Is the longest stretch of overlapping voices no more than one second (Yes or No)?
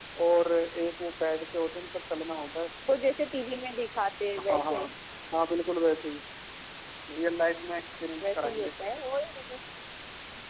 Yes